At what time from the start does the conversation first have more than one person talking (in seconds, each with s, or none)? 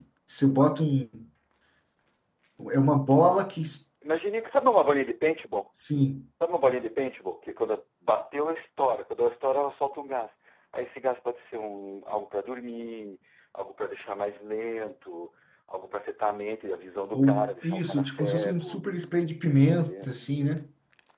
17.1 s